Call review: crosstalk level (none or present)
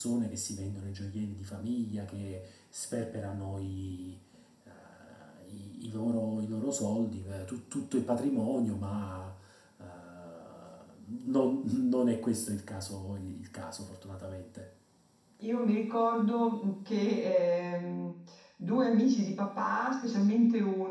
none